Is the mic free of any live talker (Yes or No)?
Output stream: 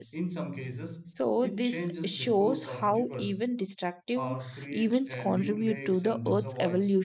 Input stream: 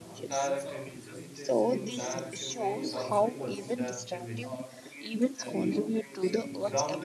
No